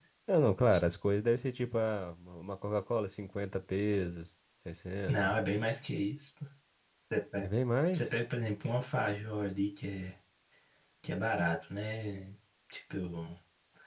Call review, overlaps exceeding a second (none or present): none